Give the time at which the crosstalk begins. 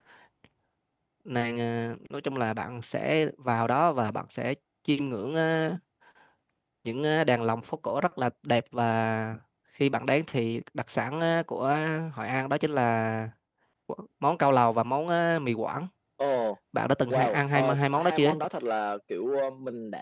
17 s

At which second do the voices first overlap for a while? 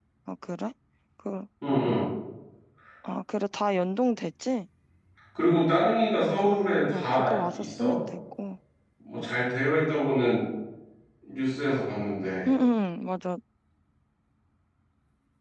6 s

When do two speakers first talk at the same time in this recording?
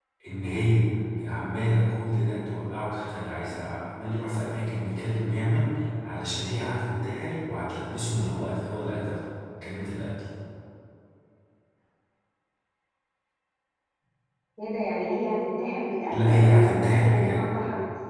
16 s

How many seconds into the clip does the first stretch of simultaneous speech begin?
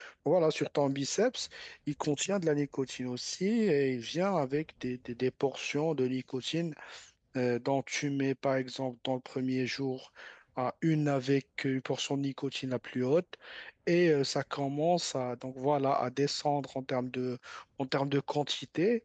none

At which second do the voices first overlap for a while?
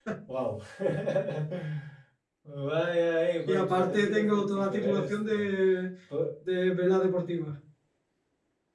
3 s

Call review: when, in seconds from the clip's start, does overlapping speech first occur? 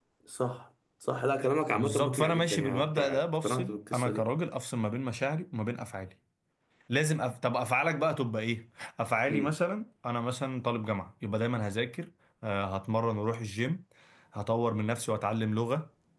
2 s

